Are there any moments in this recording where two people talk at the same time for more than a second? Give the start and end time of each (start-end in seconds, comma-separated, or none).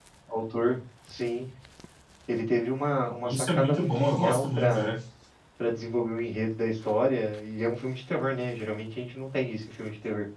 3.2-4.9